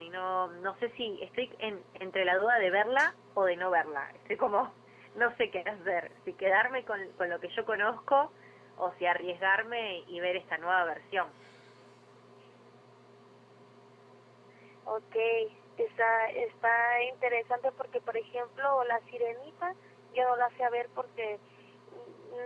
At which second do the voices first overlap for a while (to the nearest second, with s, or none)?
none